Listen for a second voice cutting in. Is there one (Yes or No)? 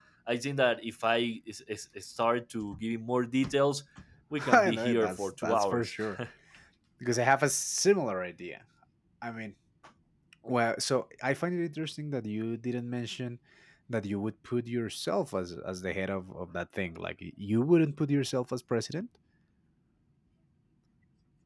Yes